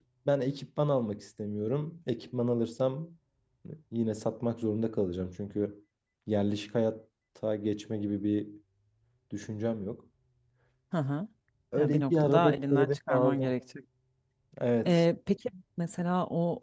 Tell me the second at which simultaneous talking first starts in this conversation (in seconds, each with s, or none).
11.8 s